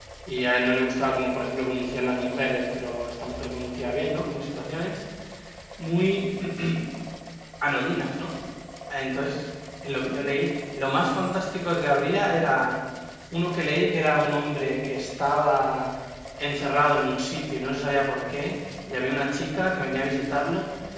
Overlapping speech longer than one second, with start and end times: none

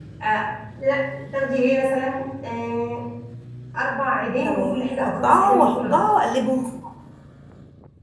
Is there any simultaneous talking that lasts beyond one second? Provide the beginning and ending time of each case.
4.4-6.0

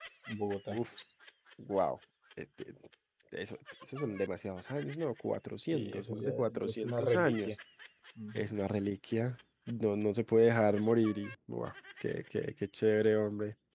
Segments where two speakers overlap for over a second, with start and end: 5.7-7.6

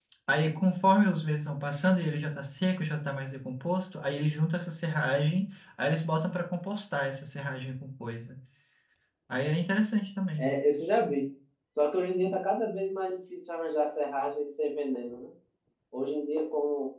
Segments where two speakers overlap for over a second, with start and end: none

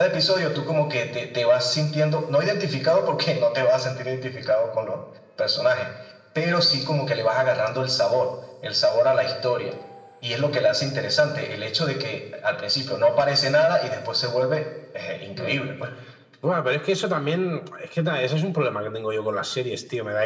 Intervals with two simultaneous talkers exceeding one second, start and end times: none

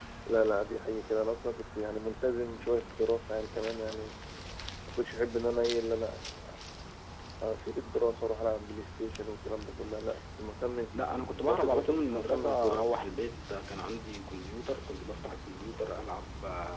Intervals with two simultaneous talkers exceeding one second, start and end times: 11.4-12.9

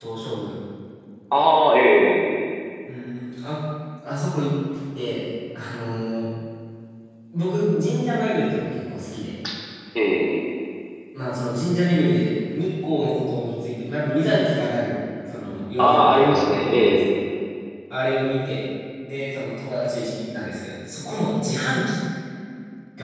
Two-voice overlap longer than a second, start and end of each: 15.8-17.1

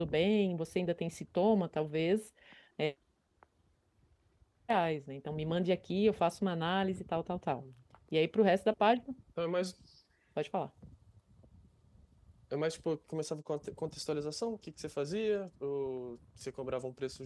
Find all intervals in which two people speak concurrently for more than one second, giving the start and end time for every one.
none

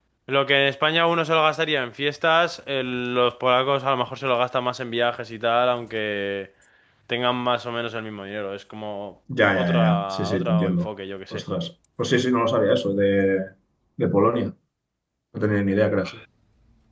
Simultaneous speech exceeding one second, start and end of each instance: 9.5-10.9

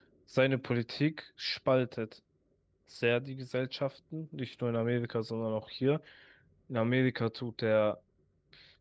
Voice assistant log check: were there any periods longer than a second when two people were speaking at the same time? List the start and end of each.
none

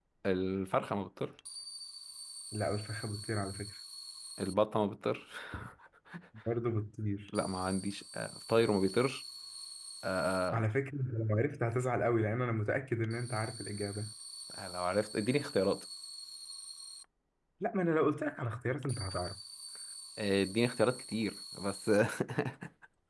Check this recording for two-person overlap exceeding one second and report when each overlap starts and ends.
none

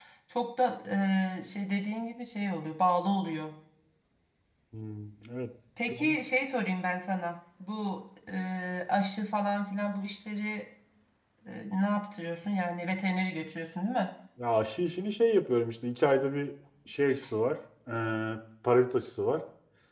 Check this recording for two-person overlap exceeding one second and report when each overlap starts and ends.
none

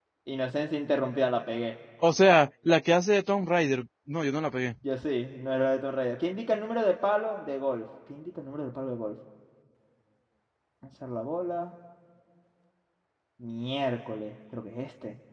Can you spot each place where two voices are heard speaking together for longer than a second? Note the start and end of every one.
none

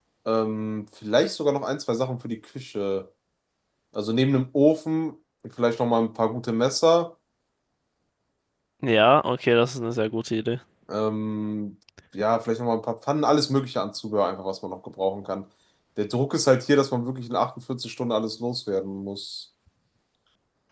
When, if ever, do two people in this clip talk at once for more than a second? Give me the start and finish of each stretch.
none

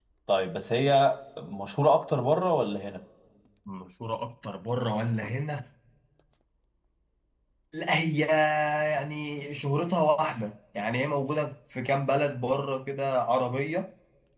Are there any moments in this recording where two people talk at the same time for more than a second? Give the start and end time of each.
none

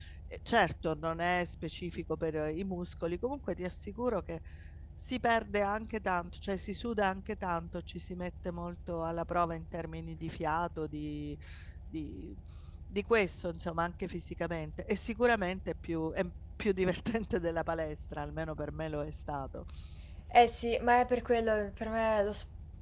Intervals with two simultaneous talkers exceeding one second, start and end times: none

